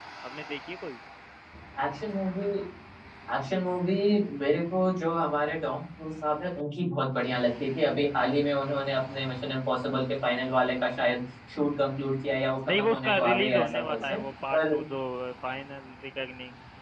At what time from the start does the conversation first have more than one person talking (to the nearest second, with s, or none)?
13 s